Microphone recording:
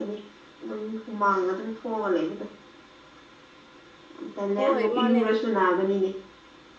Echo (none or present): present